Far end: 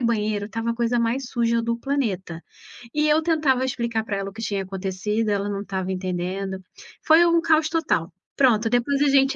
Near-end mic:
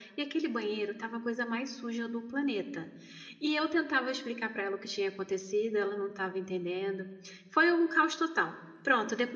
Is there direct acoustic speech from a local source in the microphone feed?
No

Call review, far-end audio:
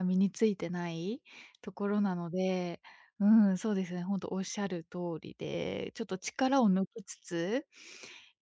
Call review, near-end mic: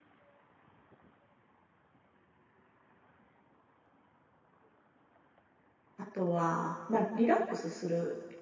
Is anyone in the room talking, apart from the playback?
Yes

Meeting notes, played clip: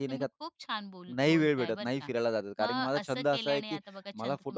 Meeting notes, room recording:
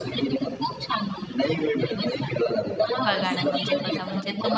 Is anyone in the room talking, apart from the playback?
Yes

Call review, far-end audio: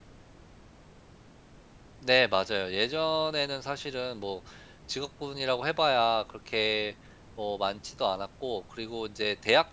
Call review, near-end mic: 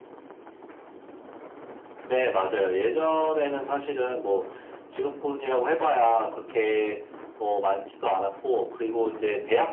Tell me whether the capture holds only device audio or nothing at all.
Yes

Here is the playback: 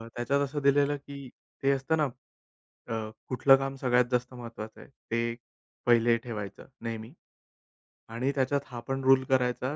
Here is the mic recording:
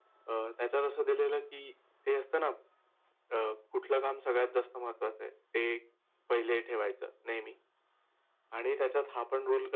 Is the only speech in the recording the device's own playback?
Yes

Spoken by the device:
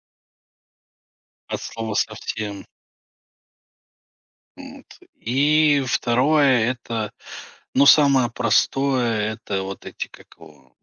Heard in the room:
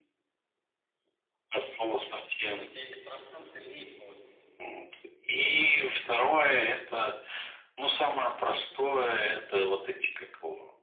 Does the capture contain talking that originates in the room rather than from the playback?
Yes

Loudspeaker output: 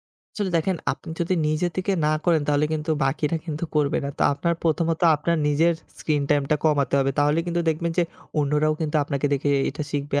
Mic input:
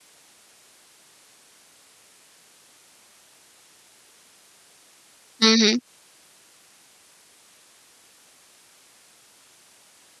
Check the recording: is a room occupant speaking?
Yes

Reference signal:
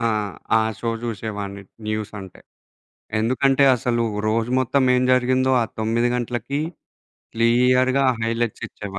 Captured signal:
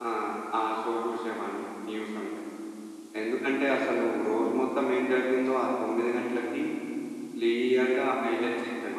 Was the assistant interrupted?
No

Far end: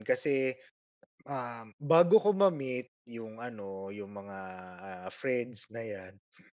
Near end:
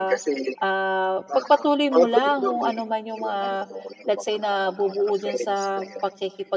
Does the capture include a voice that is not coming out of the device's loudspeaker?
Yes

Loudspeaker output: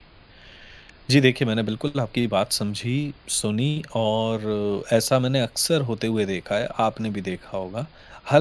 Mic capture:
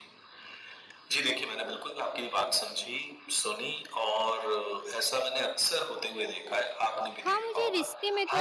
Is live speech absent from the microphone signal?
No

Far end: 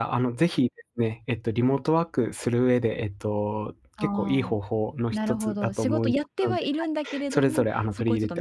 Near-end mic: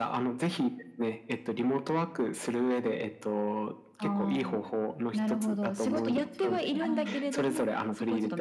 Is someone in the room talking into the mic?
Yes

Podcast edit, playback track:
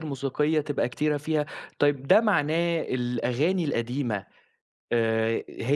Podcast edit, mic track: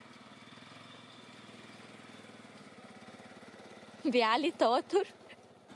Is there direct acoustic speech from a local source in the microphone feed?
Yes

